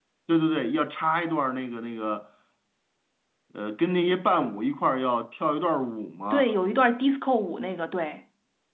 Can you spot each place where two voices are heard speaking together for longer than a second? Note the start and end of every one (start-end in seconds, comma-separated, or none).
none